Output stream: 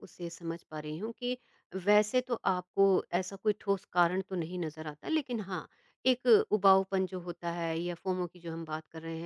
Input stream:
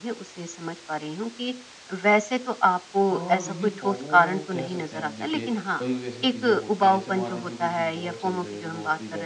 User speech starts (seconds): 3 s

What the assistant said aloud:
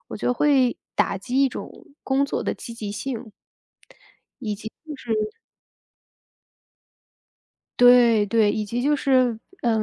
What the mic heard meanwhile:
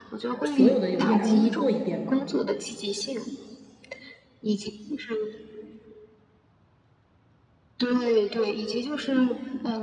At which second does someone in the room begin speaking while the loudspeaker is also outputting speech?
0 s

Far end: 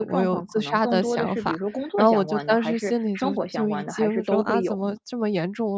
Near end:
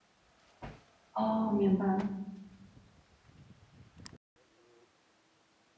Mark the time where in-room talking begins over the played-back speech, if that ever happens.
1 s

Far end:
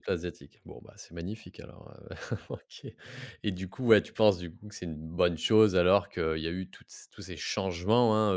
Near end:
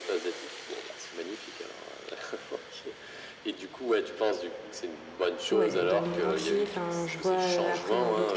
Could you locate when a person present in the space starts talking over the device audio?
6 s

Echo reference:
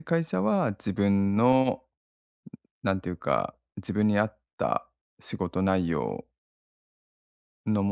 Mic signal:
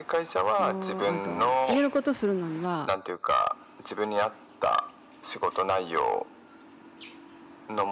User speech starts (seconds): 1 s

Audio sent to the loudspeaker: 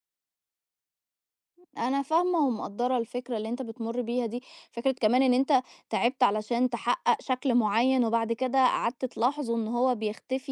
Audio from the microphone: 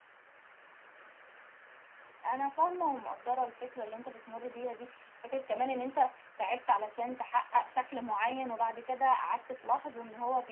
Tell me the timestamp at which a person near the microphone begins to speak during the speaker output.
none

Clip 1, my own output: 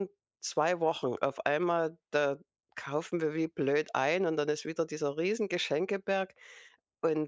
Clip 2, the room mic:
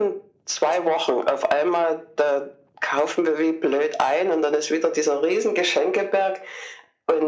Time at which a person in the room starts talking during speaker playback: none

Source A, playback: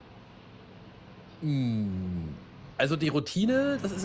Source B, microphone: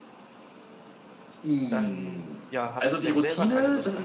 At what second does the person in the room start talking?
2 s

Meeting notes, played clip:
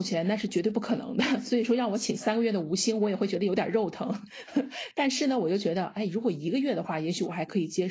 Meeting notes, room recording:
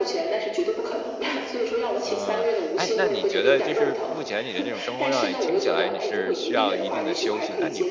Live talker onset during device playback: 2 s

